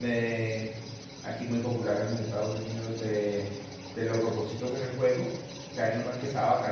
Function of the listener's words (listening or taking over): listening